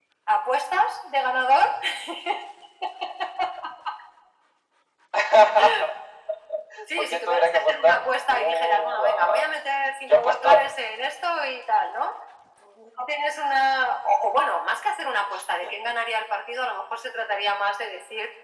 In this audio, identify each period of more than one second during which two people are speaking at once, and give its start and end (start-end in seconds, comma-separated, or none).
7.0-9.5